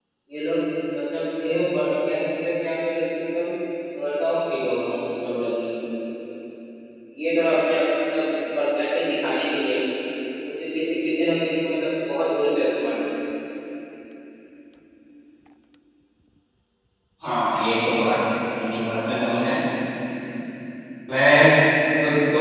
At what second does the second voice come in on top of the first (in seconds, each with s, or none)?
none